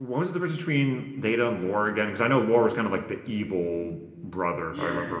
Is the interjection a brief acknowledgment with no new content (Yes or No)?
No